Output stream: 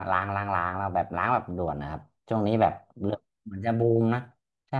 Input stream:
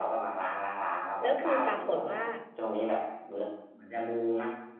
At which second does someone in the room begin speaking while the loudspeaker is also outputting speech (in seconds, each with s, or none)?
1.2 s